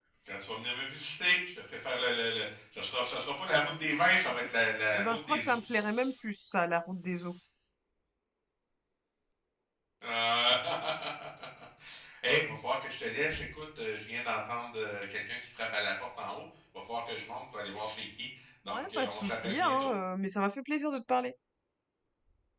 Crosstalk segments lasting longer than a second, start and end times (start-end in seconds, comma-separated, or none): 4.9-6.1, 18.7-19.9